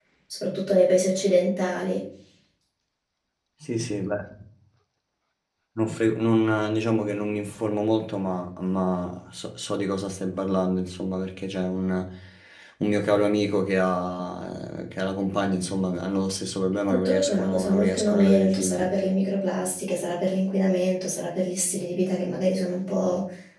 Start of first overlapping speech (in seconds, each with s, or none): 17.1 s